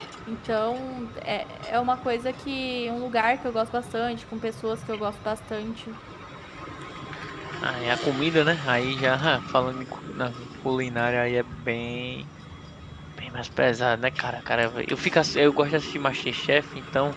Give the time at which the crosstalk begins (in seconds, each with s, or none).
none